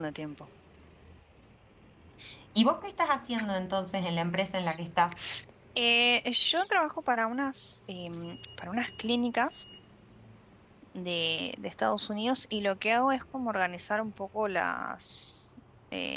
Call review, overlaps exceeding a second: none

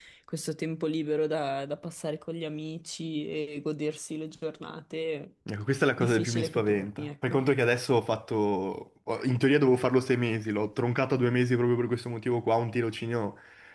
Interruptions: present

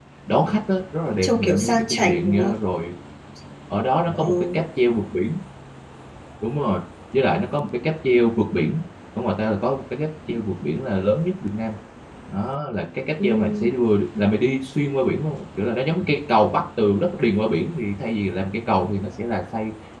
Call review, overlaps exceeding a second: present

